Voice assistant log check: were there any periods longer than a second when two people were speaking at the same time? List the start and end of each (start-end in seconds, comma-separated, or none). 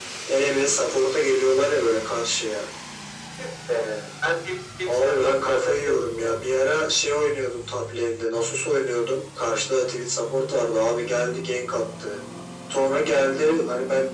4.9-6.4